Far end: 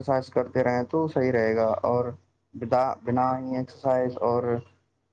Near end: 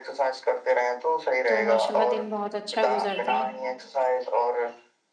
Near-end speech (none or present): present